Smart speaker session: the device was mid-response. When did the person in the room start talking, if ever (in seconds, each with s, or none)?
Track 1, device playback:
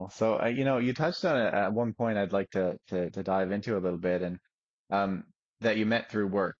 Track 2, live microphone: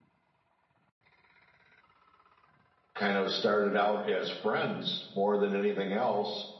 2.9 s